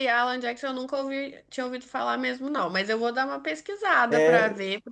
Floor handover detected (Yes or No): Yes